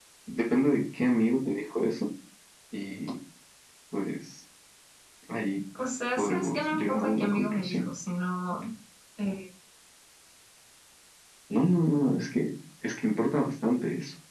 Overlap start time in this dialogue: 6.2 s

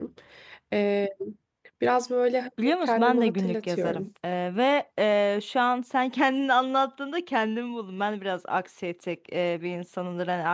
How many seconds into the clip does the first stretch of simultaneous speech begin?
2.6 s

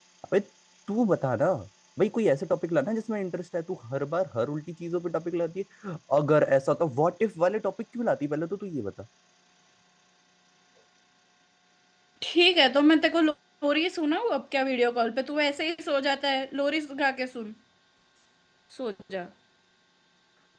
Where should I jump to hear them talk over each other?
none

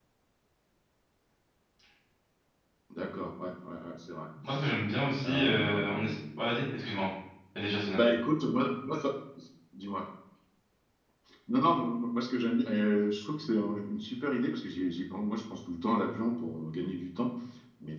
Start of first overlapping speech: 5.2 s

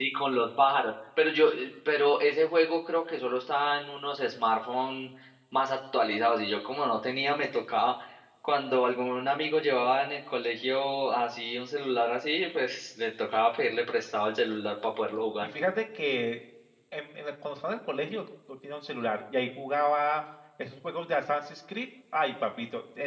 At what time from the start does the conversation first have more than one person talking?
none

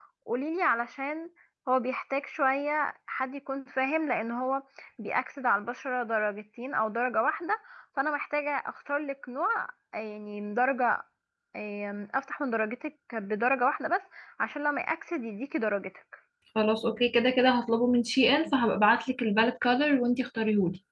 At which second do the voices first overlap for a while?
none

